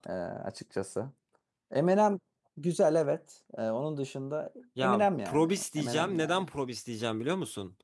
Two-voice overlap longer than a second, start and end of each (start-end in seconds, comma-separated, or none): 4.8-6.5